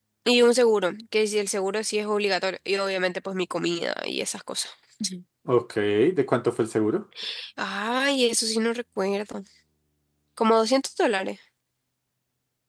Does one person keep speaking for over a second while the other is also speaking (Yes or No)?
No